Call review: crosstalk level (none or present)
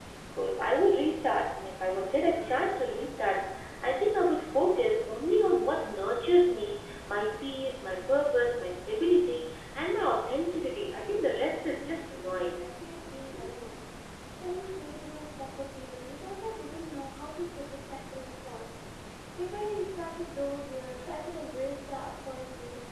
present